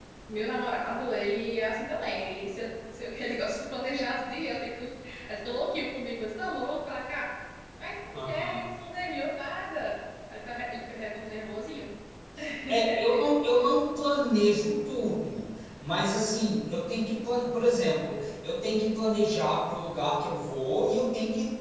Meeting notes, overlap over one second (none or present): none